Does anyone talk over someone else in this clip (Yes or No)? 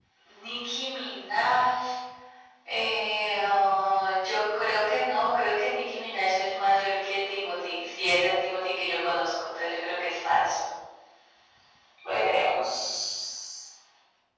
No